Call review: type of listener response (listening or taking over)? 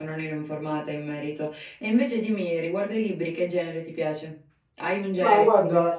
taking over